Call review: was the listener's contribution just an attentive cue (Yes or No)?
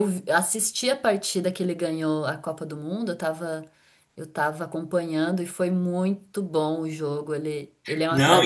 No